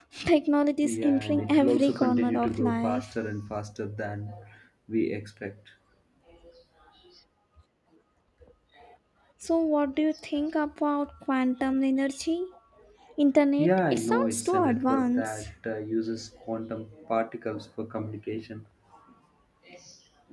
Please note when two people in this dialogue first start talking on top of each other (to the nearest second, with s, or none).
1 s